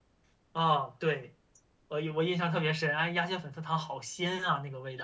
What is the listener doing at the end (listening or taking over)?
taking over